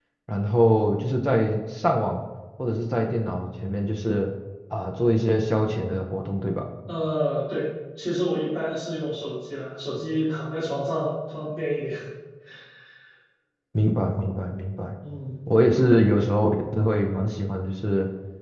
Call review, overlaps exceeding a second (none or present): none